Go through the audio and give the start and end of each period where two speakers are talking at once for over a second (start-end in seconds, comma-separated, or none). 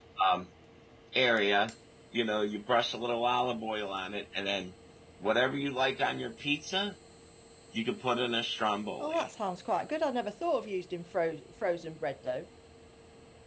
none